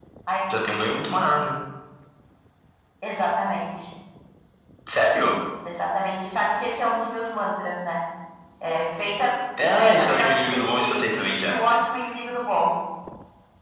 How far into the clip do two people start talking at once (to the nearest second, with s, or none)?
10 s